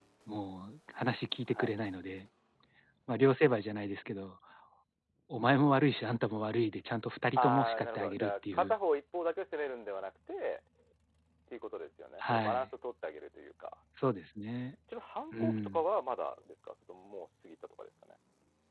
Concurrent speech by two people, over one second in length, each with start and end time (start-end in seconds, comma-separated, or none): 7.4-8.7